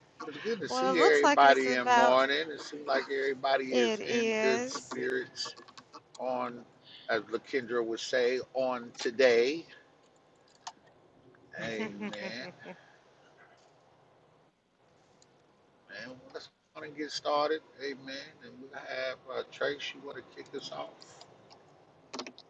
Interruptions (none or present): present